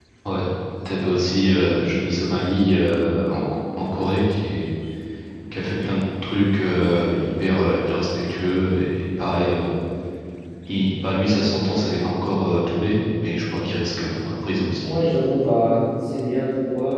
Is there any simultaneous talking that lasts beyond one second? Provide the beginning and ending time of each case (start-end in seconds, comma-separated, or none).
none